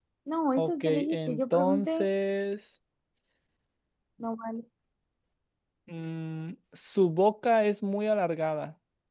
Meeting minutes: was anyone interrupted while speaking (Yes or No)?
Yes